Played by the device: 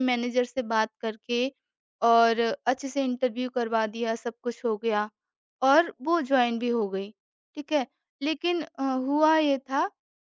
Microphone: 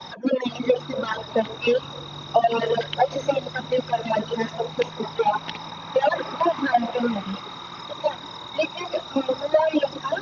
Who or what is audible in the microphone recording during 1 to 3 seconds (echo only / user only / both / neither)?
echo only